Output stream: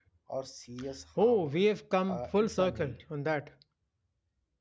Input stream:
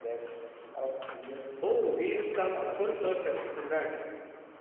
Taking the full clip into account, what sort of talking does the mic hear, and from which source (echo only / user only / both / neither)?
echo only